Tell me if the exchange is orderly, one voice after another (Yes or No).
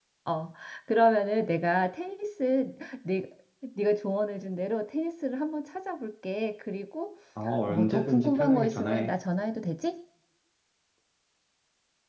No